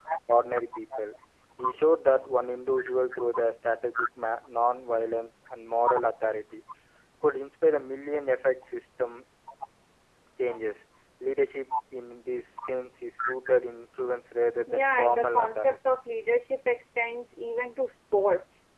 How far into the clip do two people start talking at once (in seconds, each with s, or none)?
14.7 s